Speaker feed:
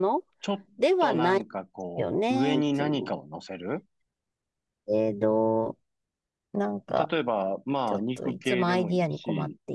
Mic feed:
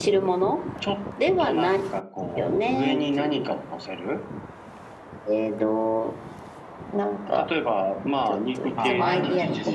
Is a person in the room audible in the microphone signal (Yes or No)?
Yes